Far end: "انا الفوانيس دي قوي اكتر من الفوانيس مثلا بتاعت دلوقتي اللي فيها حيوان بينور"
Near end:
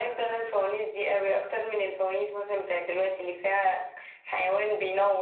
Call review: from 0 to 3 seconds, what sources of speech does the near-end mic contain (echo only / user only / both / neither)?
echo only